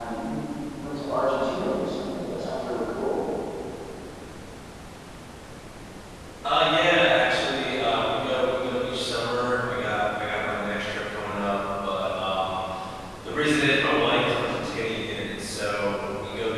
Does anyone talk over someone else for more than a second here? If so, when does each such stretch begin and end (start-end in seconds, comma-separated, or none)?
none